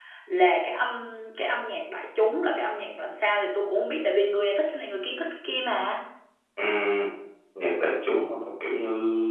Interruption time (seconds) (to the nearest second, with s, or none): none